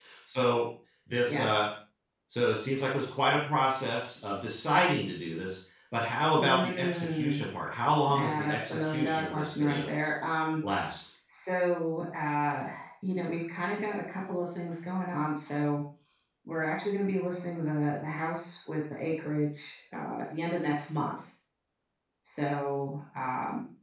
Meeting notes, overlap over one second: present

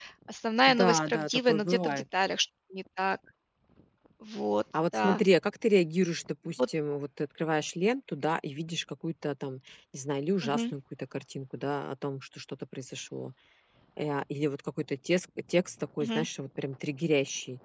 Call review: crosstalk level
present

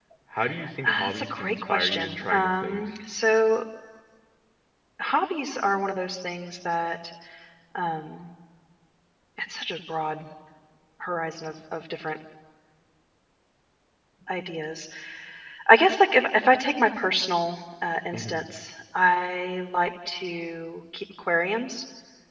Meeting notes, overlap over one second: present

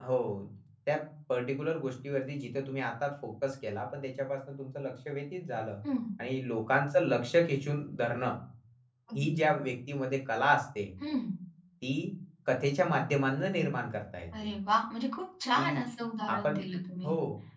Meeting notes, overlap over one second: none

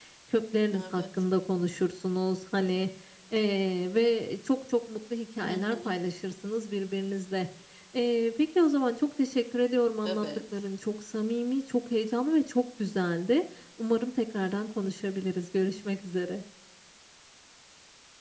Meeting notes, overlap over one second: none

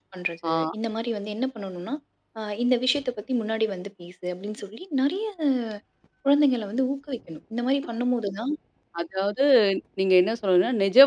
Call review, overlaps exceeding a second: none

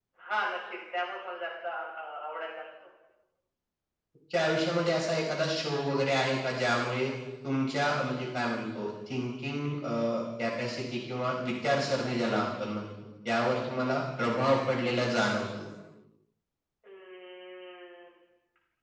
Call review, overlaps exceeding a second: none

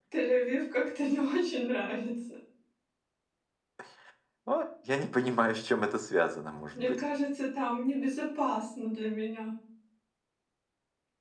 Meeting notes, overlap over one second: none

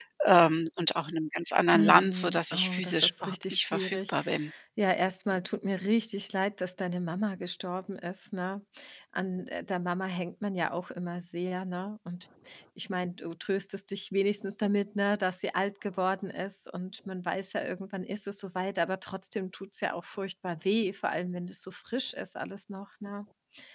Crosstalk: present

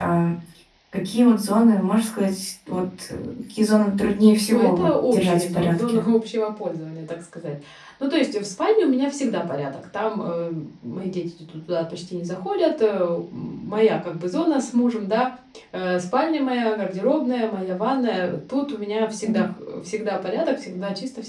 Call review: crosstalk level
present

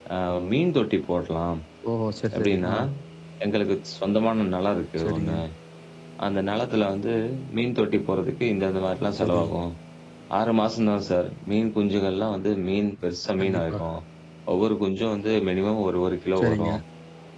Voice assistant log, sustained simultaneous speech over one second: none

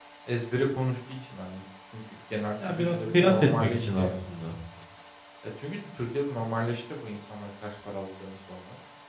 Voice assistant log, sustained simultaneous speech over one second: present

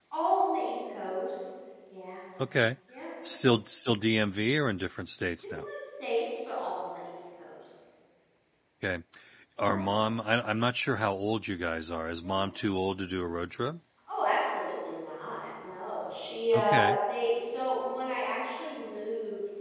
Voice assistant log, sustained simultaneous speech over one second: none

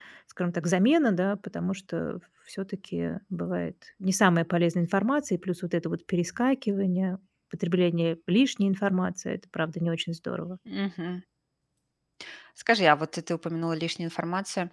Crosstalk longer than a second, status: none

